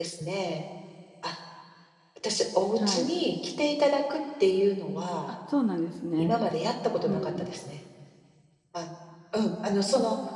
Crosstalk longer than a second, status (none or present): none